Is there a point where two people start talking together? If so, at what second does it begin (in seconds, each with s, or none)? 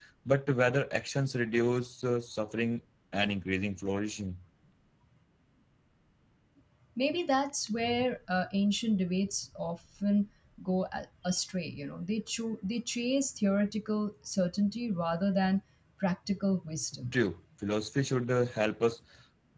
none